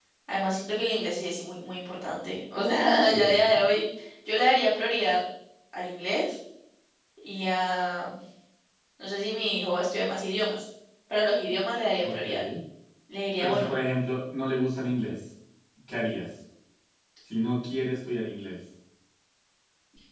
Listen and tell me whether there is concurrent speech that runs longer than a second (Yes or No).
No